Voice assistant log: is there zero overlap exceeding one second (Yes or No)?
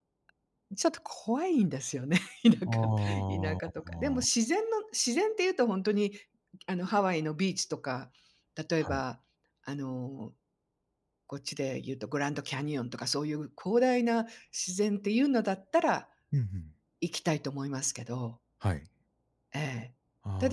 No